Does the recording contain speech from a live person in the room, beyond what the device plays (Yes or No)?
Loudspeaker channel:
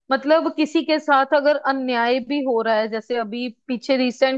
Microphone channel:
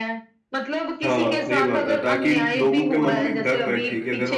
Yes